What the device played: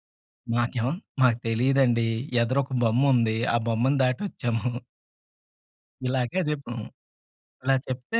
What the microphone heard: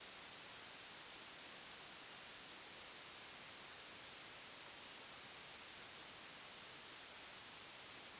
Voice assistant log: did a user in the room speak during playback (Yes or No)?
No